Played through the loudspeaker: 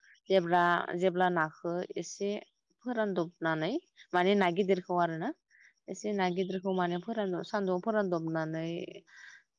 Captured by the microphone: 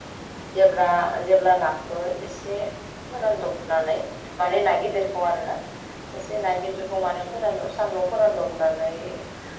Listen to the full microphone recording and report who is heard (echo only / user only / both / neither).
echo only